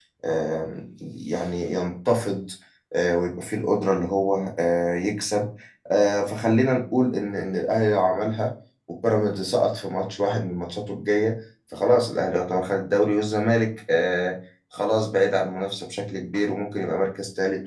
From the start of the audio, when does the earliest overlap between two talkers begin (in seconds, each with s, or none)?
none